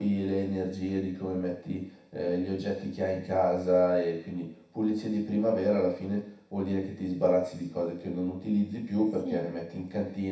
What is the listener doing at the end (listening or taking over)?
listening